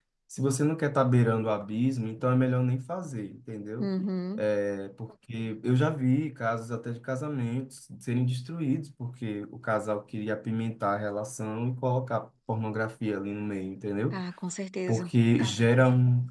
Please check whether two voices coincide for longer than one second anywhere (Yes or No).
No